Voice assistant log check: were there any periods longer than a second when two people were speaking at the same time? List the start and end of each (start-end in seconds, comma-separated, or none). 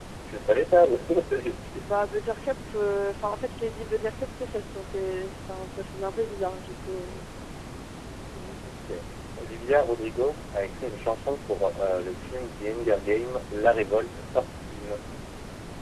none